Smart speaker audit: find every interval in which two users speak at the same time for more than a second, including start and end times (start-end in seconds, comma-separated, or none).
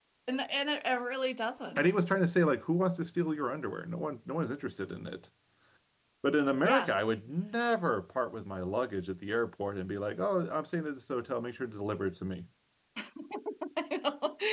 none